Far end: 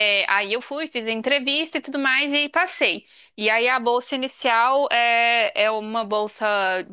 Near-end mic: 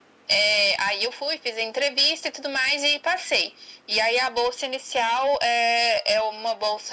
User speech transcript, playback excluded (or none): none